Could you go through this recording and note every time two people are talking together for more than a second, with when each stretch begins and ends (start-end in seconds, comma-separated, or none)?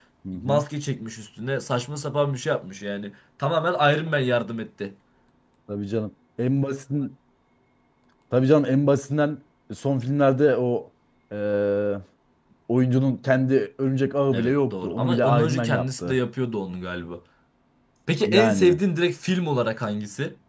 14.3-16.2